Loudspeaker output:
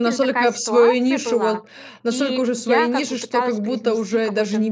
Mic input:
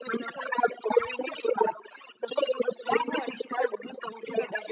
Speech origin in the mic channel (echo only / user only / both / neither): both